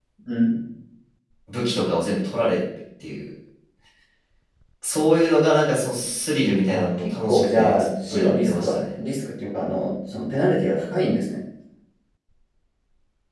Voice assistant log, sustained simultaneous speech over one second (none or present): present